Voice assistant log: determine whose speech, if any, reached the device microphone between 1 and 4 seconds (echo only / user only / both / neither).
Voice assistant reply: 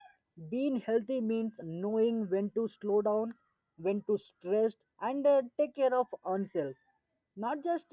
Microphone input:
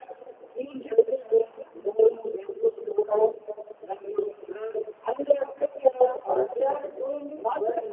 echo only